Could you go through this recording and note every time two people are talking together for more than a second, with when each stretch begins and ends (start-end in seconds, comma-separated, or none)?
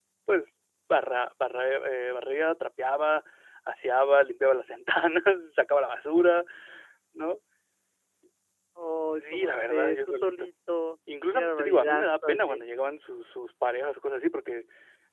9.2-10.5, 11.3-12.6